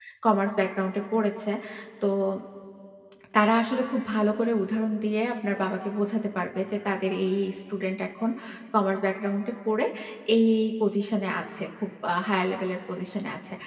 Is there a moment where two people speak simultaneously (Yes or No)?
No